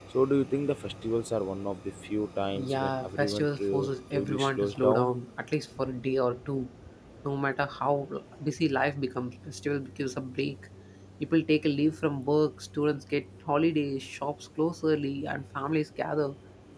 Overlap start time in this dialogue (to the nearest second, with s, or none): 3 s